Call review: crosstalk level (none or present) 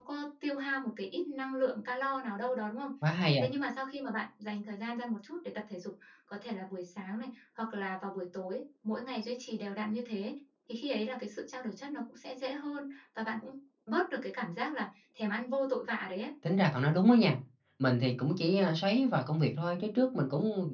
none